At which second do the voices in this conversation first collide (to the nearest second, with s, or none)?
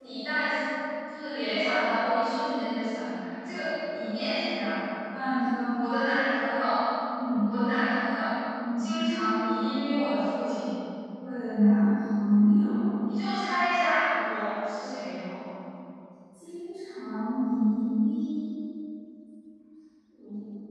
none